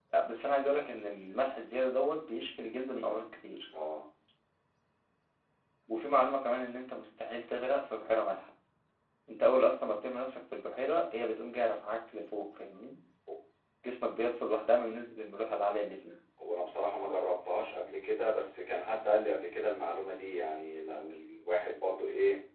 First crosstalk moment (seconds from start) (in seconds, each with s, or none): none